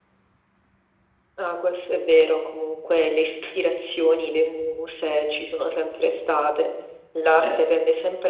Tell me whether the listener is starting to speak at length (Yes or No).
No